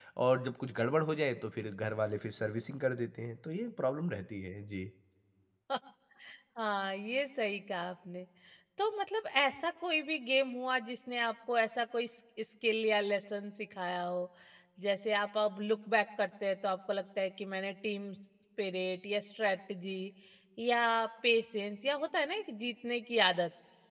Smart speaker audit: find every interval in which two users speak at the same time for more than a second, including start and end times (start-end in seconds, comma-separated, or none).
none